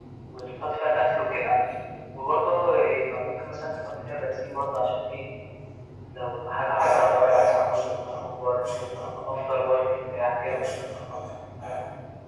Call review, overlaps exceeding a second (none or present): present